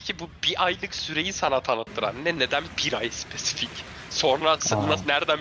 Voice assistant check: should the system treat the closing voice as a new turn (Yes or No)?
No